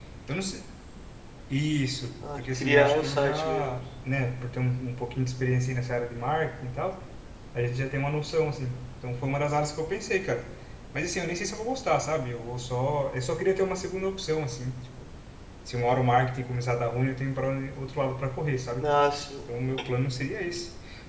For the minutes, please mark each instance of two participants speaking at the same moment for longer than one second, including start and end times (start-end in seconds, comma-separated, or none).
2.4-3.8